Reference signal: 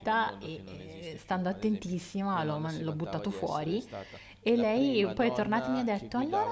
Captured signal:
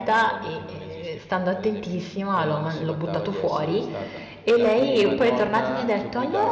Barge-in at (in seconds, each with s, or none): none